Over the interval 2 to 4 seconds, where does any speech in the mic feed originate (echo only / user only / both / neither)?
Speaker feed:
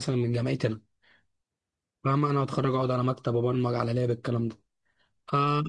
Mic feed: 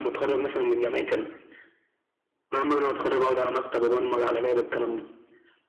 echo only